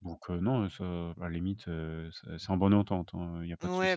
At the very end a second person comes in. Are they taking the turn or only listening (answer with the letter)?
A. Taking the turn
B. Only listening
A